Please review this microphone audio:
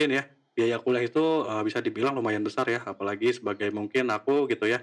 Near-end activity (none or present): none